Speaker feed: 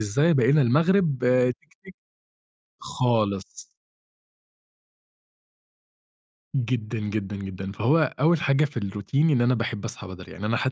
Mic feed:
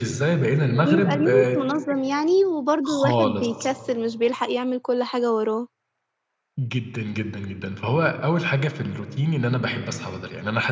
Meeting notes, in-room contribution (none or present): present